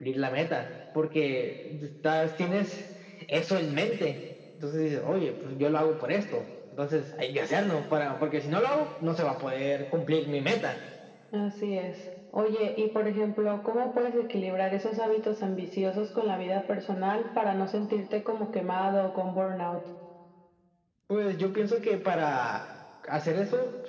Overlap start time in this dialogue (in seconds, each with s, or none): none